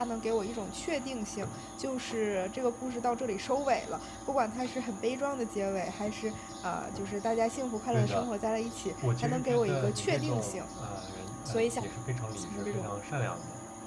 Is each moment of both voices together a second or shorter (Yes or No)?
No